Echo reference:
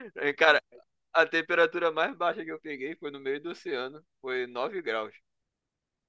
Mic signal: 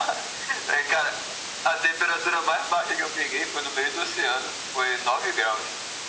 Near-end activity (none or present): none